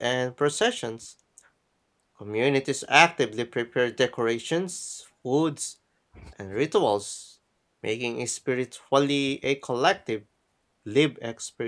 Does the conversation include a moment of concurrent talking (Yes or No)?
No